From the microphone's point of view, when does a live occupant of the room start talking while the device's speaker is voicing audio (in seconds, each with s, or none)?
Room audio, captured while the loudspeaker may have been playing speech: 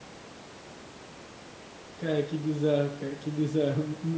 2.0 s